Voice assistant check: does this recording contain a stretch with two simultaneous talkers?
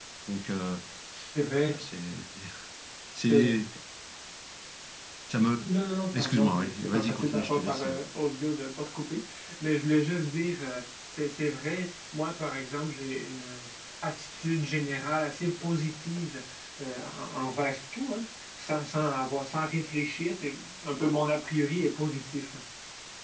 Yes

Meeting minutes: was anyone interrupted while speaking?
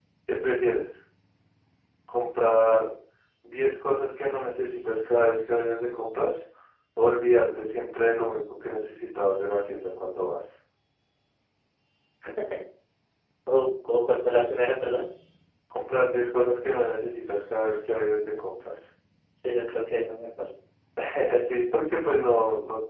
No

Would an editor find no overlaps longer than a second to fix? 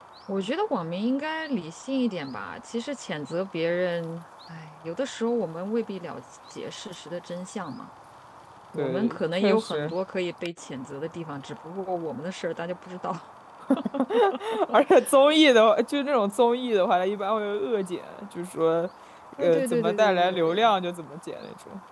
No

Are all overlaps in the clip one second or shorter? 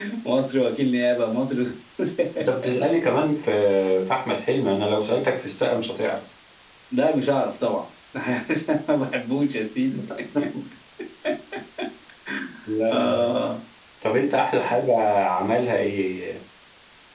Yes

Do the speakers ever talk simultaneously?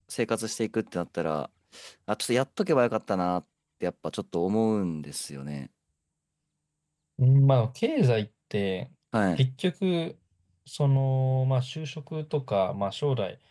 No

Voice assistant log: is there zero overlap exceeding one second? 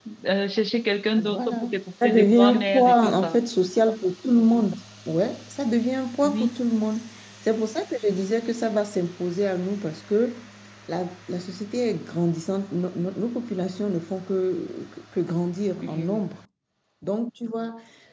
No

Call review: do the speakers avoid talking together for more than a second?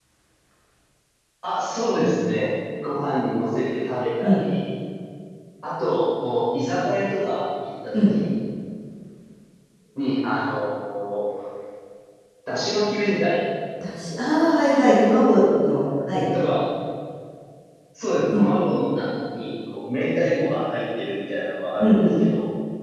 Yes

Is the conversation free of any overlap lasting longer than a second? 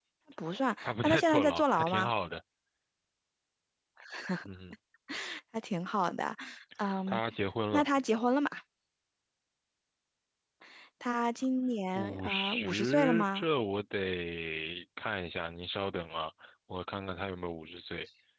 No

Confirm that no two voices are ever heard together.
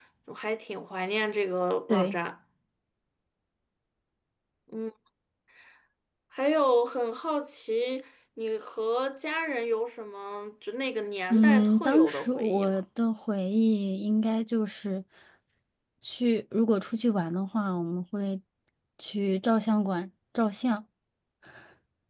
No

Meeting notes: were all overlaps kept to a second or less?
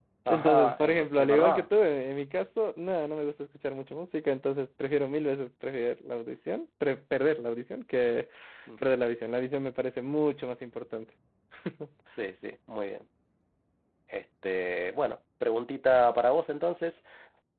No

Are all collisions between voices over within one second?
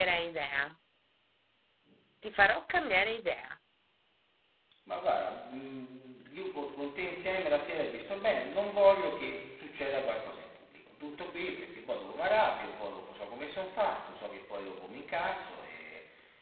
Yes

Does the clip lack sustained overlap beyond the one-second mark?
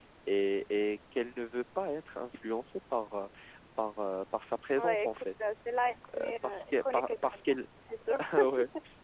No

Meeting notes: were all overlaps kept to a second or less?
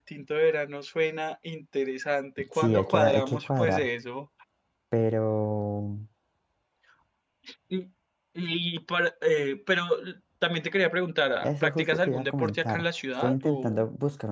No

